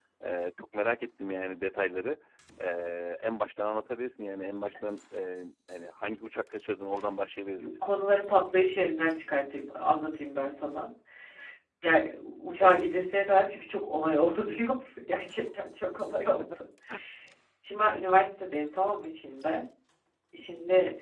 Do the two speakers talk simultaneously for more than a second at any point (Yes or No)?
No